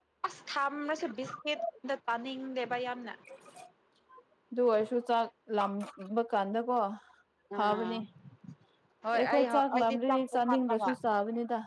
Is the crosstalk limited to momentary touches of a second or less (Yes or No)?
No